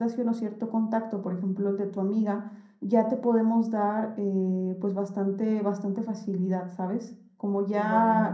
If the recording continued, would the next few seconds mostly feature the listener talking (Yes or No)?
No